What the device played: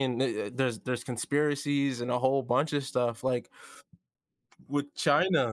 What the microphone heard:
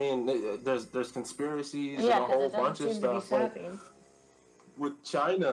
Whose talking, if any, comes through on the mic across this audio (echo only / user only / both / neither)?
both